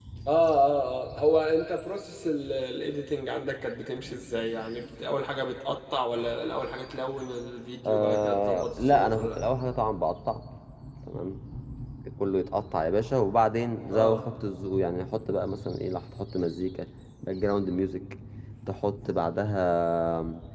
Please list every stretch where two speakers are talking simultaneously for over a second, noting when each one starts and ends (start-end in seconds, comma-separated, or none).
7.8-9.4